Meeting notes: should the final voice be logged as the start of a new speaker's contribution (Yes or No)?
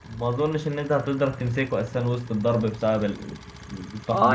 Yes